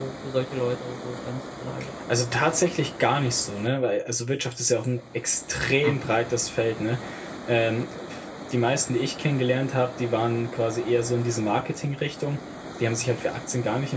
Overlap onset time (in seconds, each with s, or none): none